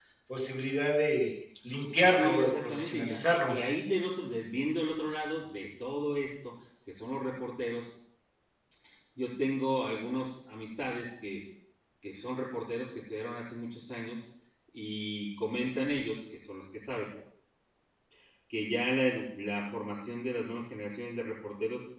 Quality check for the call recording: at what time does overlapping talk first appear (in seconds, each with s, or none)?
1.9 s